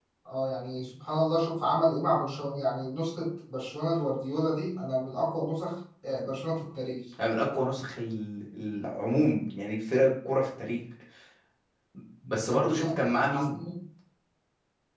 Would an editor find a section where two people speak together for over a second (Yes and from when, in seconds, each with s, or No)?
Yes, from 12.3 s